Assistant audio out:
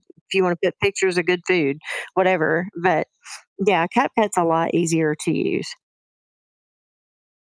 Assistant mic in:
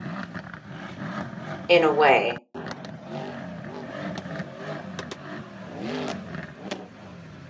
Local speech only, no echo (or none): in a way,